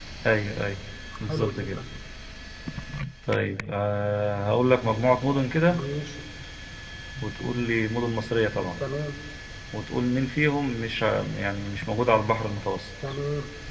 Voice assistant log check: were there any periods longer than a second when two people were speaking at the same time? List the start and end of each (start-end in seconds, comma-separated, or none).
none